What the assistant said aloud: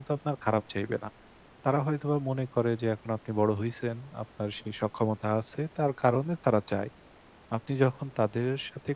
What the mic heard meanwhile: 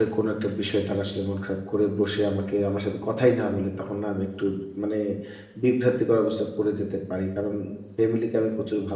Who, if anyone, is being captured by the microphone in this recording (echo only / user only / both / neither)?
user only